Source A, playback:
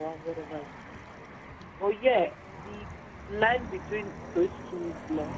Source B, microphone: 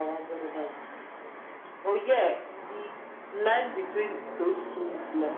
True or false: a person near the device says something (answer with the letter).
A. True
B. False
B